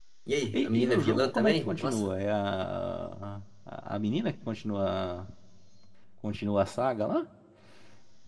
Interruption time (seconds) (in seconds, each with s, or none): 0.5 s